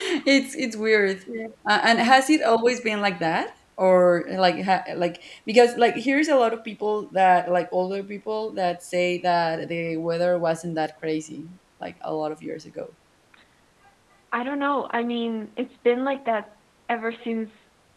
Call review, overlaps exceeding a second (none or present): none